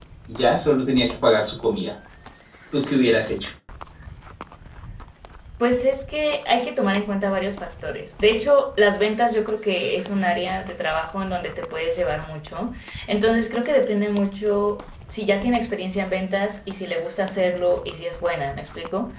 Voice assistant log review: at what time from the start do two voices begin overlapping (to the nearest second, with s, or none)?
none